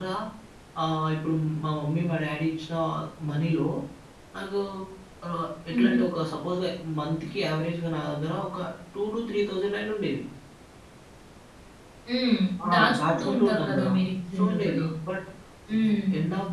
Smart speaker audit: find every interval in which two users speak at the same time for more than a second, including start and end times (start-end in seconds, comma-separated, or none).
12.7-13.9